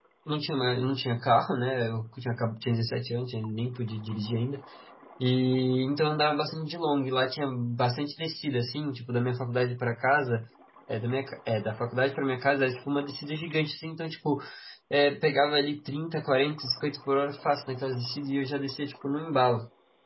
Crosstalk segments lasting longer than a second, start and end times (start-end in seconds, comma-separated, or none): none